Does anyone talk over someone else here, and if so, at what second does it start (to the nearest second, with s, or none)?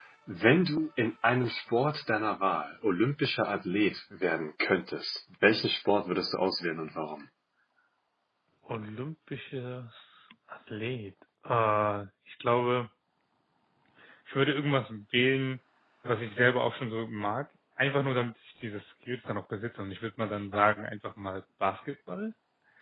none